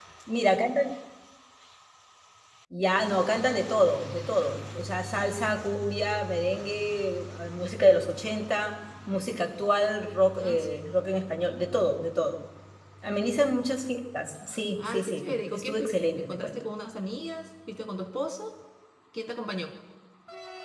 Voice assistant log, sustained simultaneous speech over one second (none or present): present